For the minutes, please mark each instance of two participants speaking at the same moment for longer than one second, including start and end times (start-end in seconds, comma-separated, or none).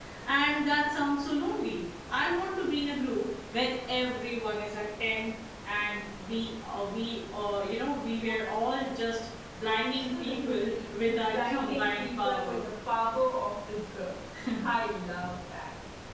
11.0-12.6